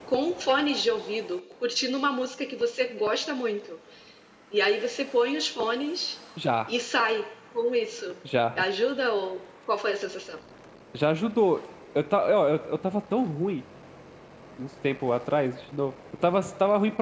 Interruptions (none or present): none